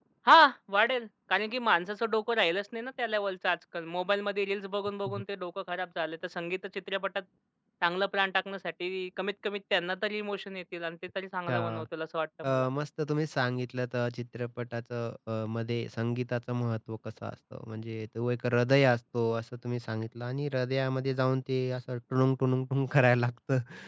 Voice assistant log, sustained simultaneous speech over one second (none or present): none